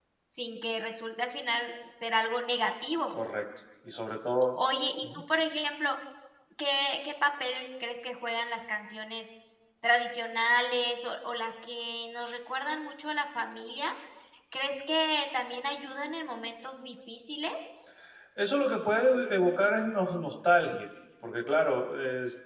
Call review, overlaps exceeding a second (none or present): none